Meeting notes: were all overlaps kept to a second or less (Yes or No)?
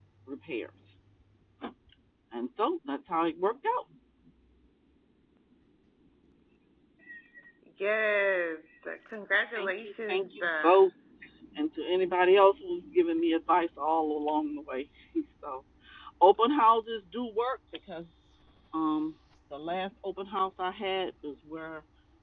No